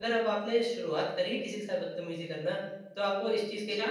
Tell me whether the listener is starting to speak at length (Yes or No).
No